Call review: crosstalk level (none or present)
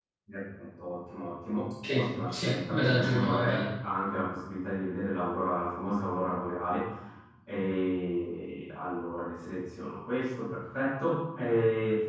present